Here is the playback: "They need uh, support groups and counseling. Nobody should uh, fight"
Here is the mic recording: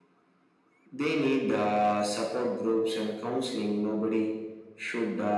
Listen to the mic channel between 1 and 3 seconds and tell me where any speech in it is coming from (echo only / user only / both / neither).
echo only